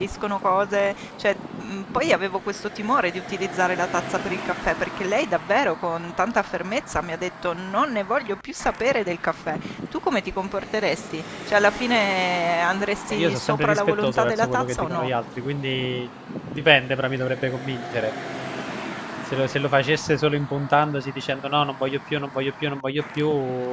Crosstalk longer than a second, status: present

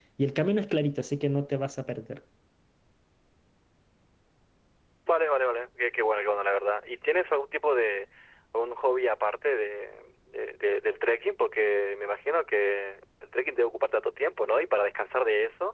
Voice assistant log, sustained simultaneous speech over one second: none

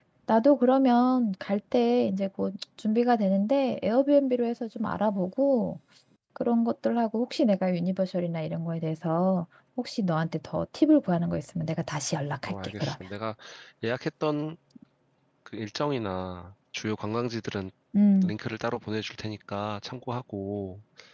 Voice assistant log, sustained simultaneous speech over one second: none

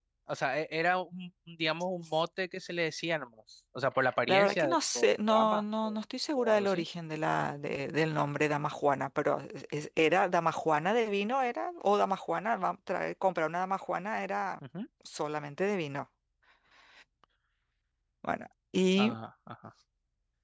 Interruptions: present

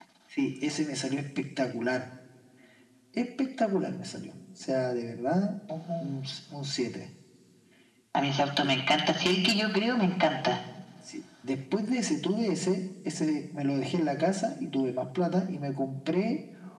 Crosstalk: none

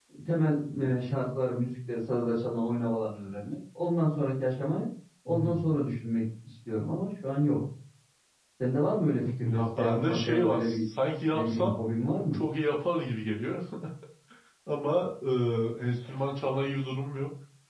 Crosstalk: present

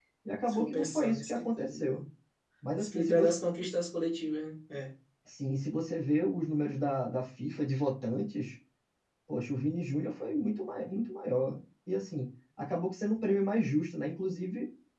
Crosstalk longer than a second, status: present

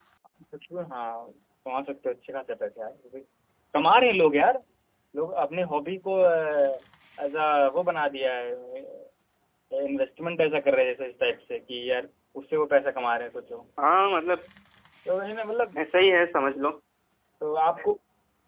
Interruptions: none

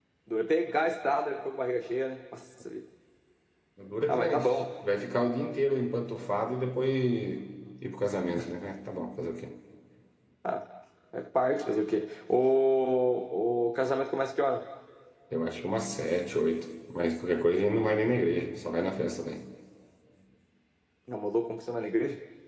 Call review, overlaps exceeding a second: none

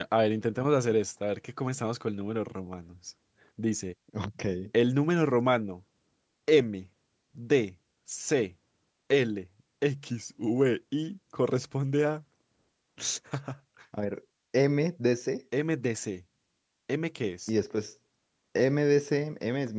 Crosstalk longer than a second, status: none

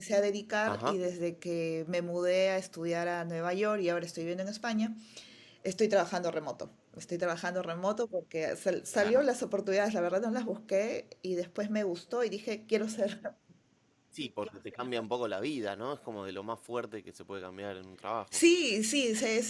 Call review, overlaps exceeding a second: none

